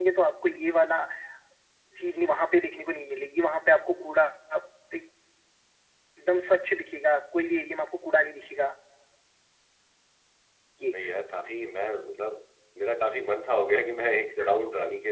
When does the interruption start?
none

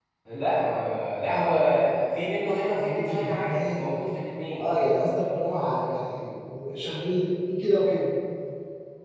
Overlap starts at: 2.8 s

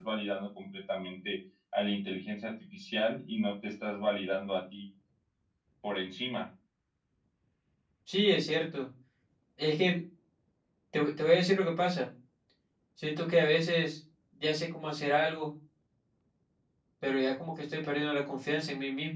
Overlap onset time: none

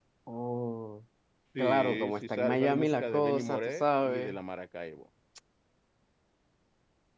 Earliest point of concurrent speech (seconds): 1.6 s

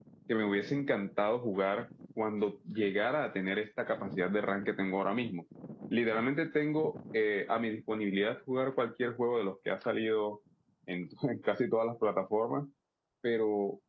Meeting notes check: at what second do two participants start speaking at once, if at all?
none

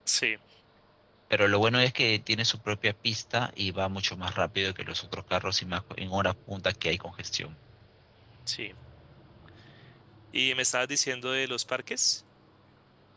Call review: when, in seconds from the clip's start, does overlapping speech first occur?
none

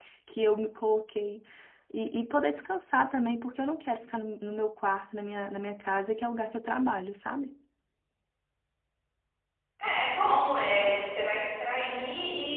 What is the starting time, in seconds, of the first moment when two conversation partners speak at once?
none

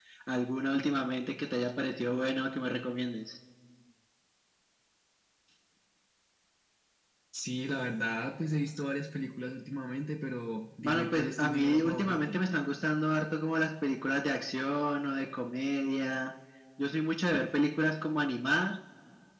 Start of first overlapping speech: 10.8 s

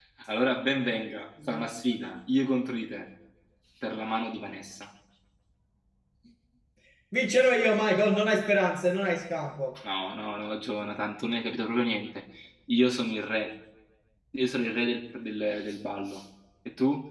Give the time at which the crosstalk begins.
none

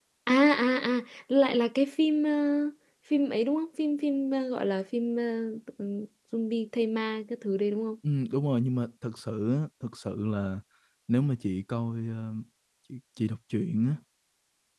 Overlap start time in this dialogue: none

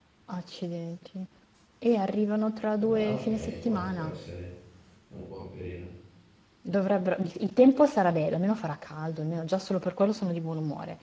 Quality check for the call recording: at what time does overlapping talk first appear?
2.8 s

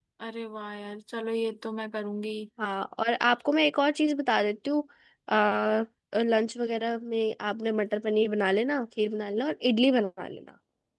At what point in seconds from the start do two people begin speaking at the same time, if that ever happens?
none

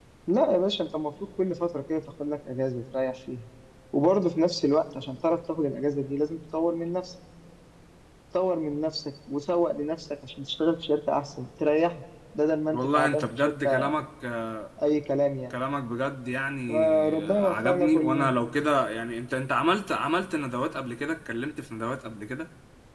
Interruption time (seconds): 12.7 s

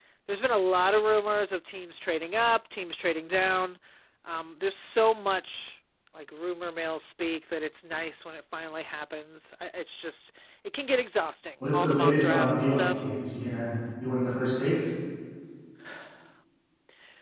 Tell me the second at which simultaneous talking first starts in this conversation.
11.6 s

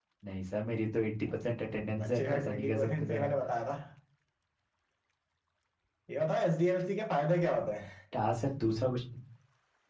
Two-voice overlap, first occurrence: 1.8 s

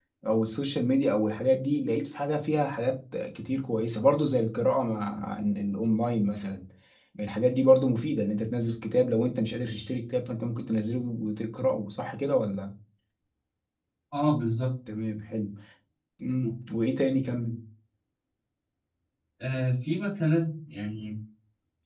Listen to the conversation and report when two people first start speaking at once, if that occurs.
none

